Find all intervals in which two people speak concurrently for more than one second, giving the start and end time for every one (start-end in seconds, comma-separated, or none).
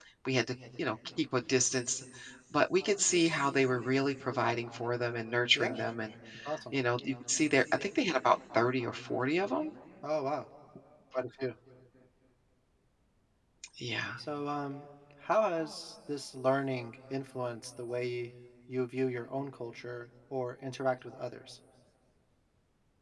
none